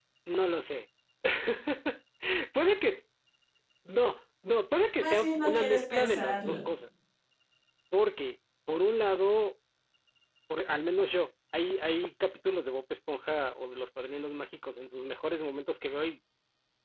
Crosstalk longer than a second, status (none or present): present